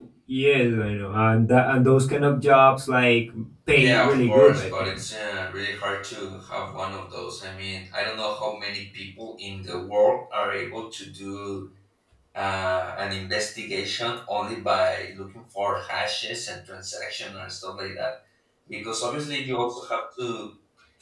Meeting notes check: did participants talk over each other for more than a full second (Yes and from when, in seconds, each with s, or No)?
Yes, from 3.7 s